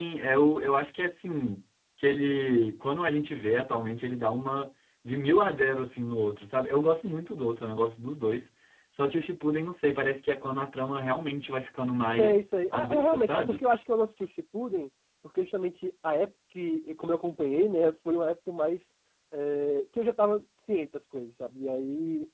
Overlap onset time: 12.2 s

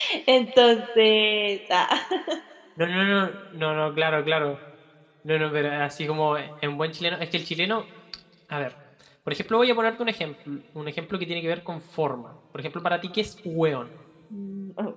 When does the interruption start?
none

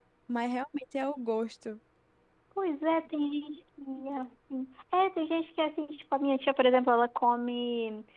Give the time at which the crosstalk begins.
none

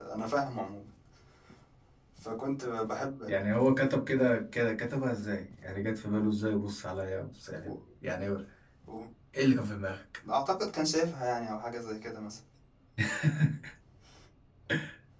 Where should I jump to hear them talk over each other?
none

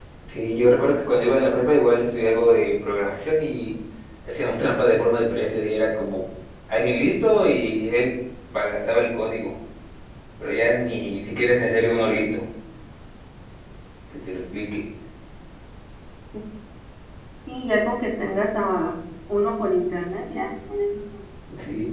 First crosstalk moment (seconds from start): none

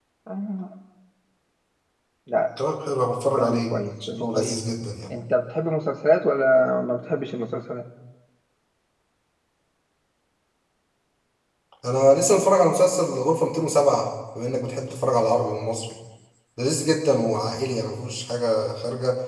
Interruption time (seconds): 3.4 s

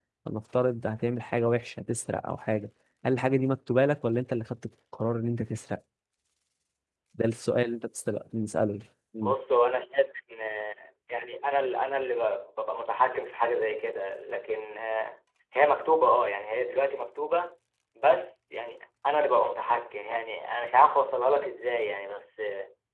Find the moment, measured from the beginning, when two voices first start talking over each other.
none

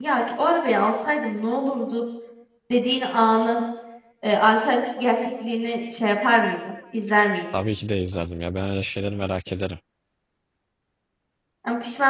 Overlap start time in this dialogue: none

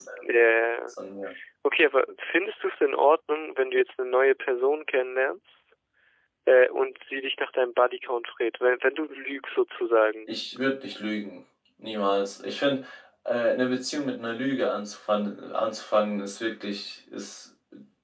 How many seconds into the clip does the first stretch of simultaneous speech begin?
none

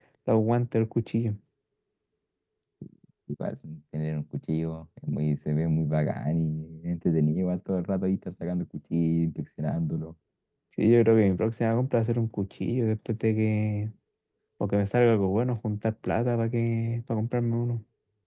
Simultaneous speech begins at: none

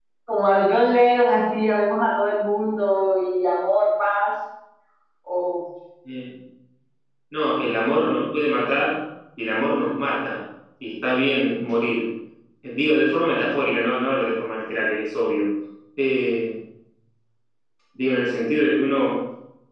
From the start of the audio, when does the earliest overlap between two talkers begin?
none

